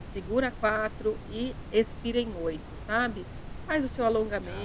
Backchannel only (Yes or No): Yes